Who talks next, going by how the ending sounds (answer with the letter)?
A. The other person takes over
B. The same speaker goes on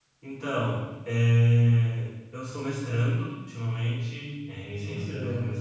B